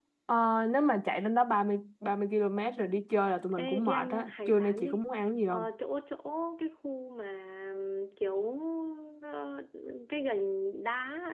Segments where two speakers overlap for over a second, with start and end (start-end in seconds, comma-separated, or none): 3.5-5.0